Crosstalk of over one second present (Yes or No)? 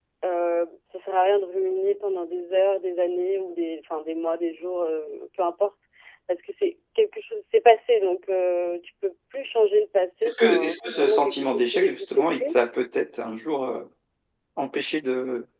Yes